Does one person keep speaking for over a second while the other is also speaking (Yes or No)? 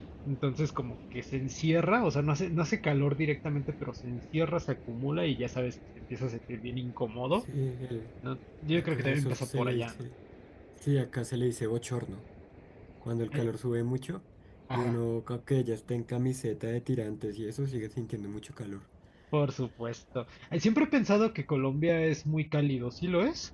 Yes